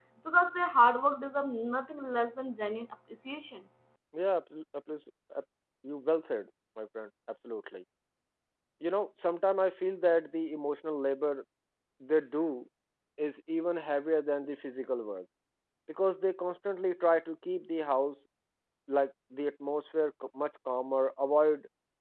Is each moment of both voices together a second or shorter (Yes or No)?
Yes